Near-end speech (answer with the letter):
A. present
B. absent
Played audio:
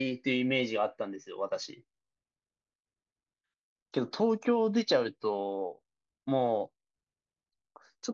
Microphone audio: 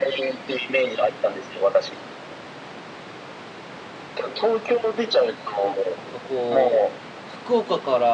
A